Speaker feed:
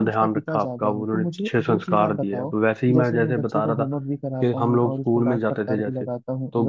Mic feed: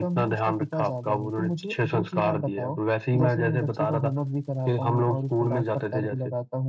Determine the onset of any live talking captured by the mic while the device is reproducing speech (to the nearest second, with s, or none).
none